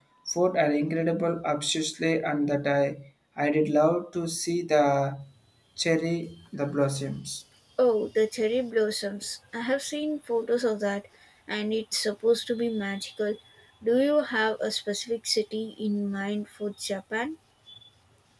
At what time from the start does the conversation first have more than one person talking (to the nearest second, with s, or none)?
none